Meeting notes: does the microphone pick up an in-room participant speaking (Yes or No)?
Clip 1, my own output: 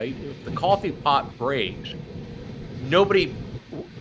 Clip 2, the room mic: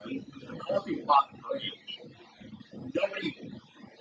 No